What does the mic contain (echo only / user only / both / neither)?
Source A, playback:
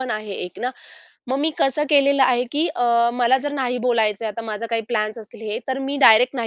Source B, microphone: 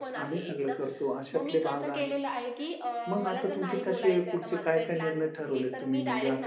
both